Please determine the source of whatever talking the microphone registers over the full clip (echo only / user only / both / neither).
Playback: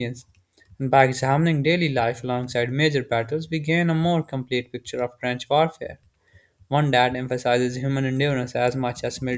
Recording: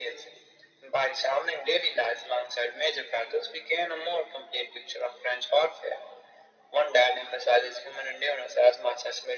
echo only